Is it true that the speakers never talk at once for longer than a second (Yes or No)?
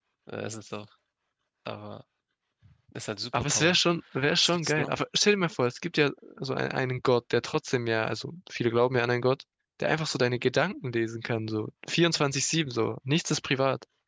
Yes